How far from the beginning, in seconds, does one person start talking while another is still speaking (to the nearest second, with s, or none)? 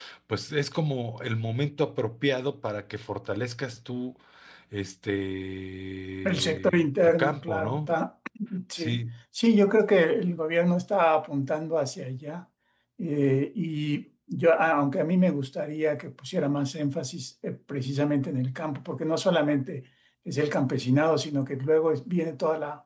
6 s